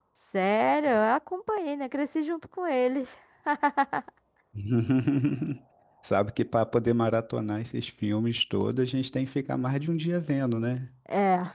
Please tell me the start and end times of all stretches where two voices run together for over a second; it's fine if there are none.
none

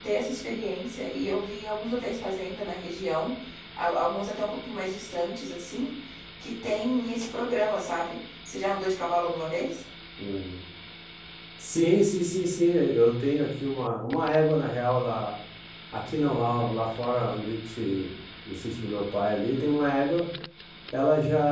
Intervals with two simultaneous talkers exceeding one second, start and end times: none

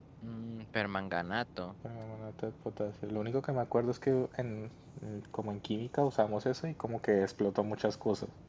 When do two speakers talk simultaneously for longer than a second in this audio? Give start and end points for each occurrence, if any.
none

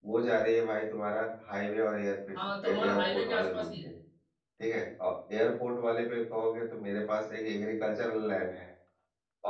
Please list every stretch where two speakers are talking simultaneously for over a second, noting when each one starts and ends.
2.6-3.9

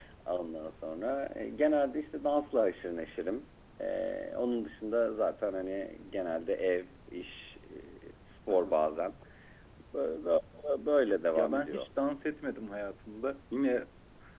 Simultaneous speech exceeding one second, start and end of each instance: none

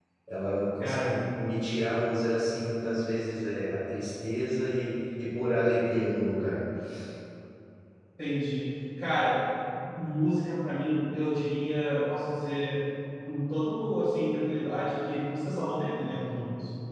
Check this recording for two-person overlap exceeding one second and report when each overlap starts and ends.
none

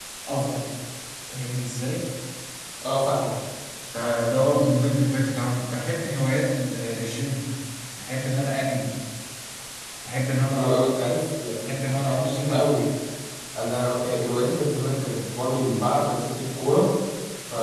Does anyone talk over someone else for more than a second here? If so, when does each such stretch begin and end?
11.6-12.8

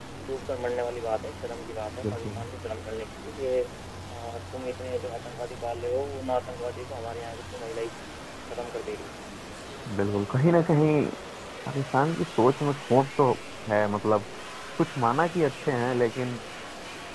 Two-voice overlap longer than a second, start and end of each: none

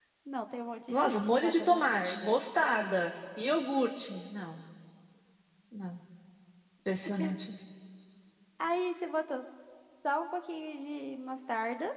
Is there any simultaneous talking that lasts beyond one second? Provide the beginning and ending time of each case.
0.9-2.4

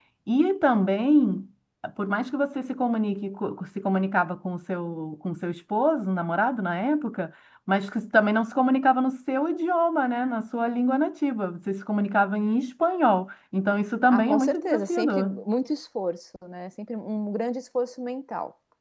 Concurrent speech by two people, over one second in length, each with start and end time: 14.1-15.4

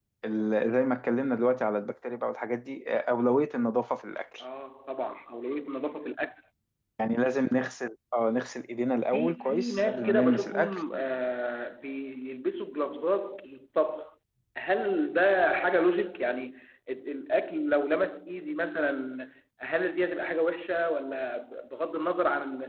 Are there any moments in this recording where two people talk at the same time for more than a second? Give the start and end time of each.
9.1-10.8

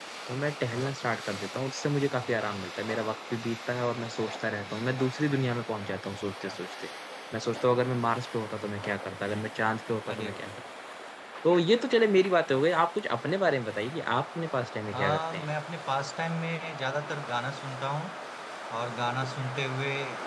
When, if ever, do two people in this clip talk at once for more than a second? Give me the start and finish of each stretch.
none

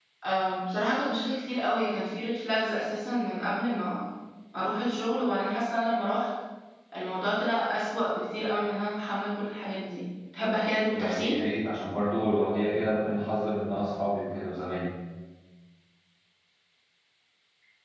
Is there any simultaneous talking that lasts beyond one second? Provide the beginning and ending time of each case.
none

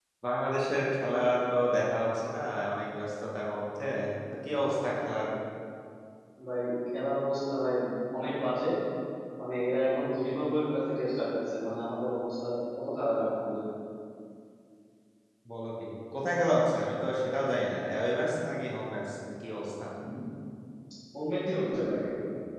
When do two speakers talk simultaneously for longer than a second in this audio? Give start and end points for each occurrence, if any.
none

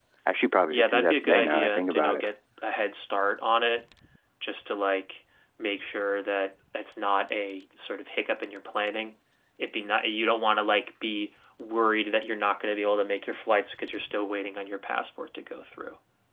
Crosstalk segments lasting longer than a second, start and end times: 0.7-2.2

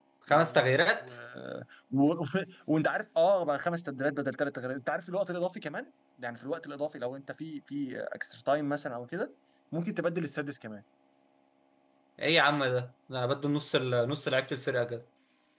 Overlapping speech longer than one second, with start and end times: none

